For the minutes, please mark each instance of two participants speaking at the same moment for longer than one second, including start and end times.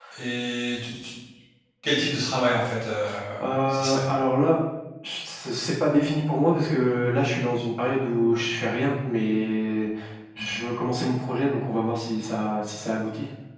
none

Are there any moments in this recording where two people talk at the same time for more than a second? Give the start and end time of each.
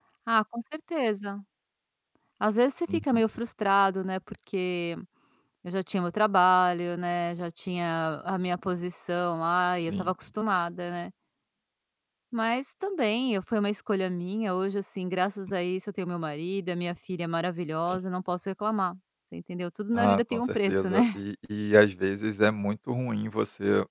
19.9-21.2

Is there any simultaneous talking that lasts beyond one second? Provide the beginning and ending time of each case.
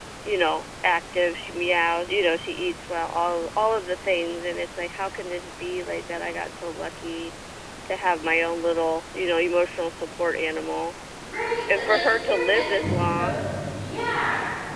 11.8-13.4

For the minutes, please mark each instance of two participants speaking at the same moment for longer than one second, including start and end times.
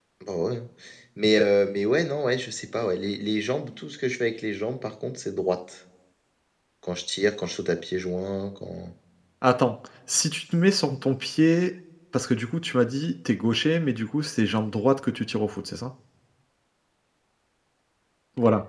none

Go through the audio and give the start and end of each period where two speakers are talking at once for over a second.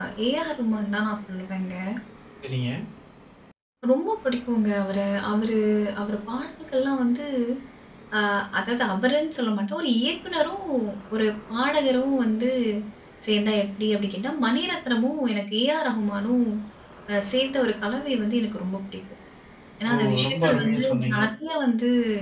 19.9-21.2

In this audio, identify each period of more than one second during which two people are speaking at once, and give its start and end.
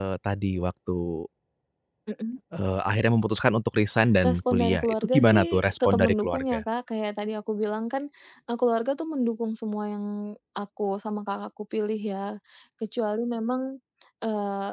4.2-6.6

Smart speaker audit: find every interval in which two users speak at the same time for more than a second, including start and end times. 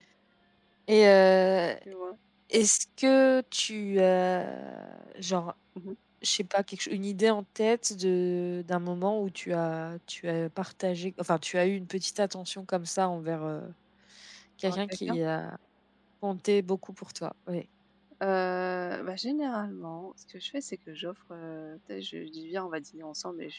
none

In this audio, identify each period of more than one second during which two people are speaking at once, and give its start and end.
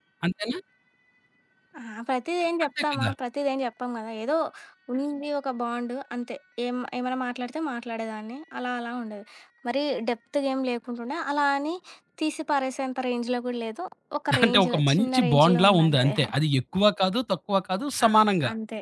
14.4-16.1

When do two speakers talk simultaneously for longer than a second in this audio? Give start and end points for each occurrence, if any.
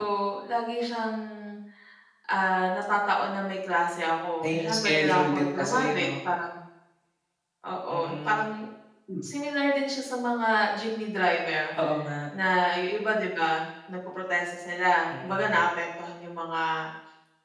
4.4-6.1

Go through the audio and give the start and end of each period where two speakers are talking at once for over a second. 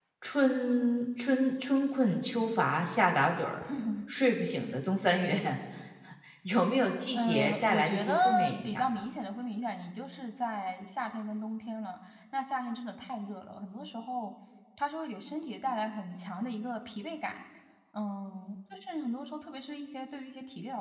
7.1-8.8

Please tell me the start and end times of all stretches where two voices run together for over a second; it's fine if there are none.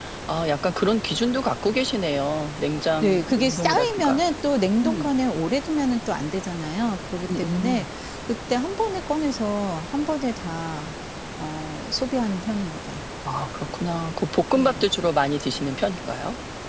3.0-4.2

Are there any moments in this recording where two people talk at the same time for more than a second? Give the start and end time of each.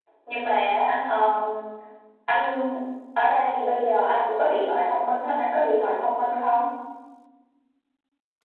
none

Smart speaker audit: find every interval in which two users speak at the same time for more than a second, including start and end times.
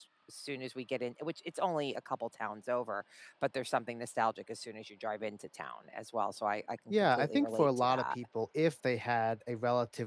6.9-8.2

